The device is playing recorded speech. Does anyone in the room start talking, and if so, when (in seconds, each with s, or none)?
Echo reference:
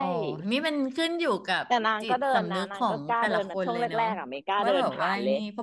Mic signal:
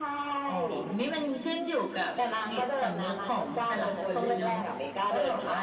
3.5 s